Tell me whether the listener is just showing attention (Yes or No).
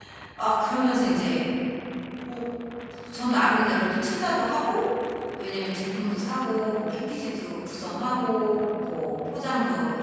Yes